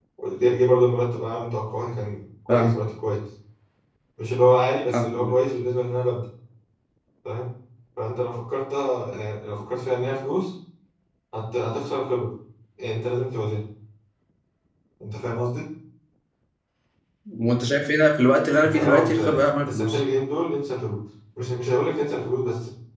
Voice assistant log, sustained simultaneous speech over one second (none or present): present